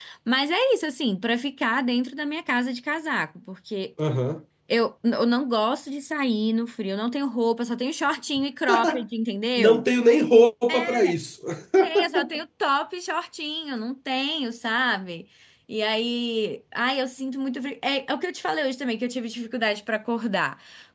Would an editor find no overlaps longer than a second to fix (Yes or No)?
Yes